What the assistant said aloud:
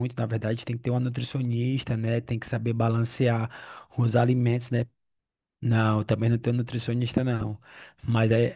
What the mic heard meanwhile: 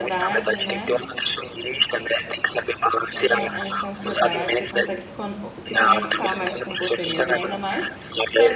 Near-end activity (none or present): present